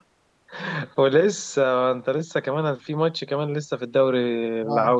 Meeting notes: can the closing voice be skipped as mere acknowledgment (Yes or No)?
No